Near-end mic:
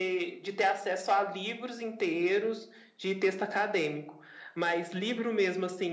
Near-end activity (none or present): none